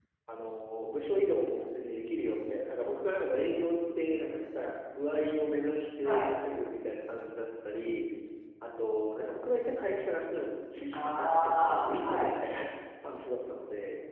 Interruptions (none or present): present